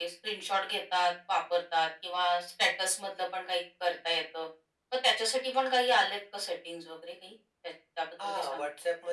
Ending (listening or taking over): taking over